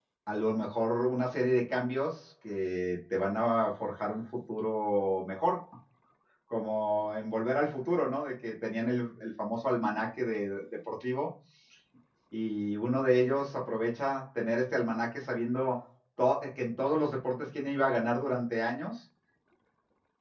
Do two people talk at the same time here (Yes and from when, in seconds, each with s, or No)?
No